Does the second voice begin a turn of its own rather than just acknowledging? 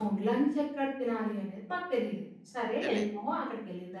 No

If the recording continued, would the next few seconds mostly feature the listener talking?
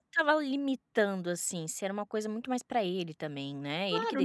Yes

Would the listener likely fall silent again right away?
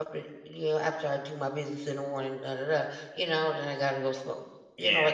Yes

